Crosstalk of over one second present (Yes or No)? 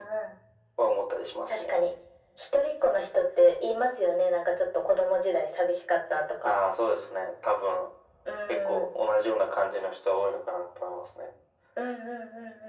No